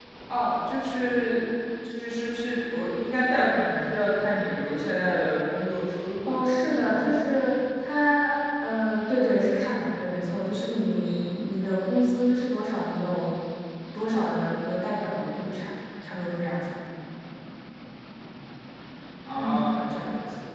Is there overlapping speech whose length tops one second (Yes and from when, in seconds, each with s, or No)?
Yes, from 6.2 s